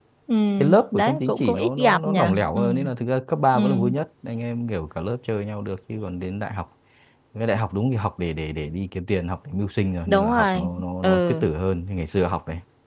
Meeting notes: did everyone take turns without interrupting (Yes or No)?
No